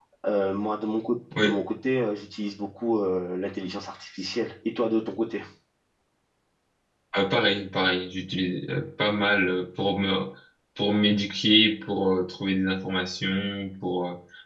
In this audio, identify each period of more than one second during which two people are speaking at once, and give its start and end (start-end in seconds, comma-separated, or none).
none